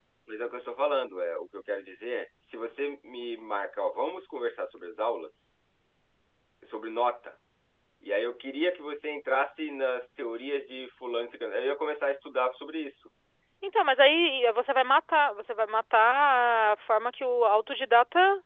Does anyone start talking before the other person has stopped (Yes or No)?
No